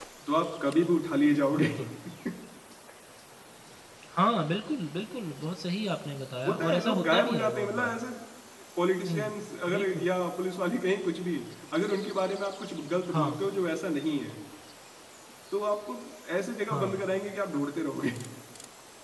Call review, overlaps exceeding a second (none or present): present